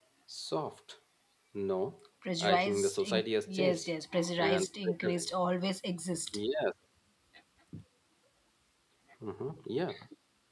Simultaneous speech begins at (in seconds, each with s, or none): 2.4 s